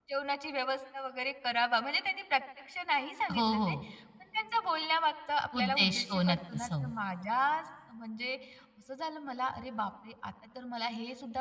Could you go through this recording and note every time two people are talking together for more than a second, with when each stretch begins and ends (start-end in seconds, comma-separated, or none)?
5.6-6.8